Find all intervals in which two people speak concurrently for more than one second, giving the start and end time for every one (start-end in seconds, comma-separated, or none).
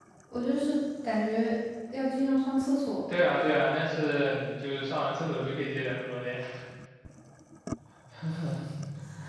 none